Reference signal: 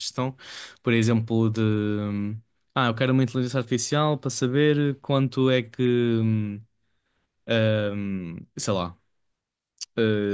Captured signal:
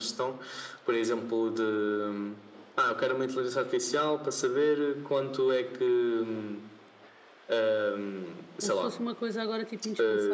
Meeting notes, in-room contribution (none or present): present